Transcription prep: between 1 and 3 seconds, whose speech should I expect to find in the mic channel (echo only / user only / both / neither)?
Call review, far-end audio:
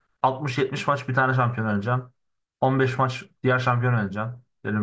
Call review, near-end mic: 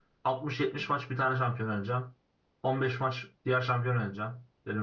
echo only